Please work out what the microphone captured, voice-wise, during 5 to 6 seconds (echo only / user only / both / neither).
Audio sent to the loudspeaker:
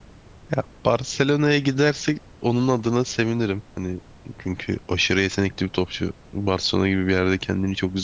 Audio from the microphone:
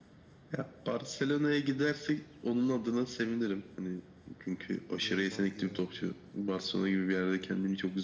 both